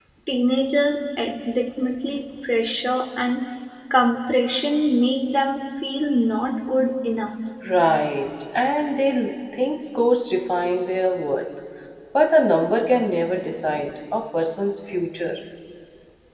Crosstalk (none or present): none